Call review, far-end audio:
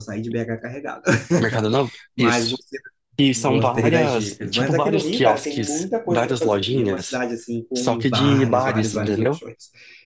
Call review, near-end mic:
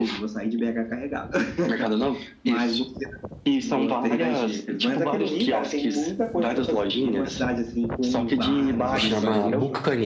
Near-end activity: present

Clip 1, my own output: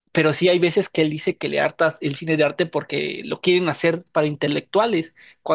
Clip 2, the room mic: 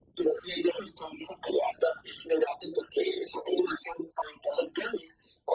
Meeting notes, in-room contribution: none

